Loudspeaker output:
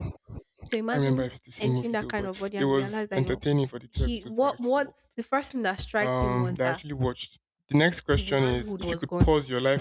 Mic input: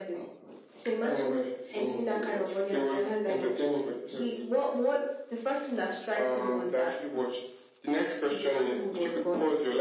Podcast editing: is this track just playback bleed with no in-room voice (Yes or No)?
Yes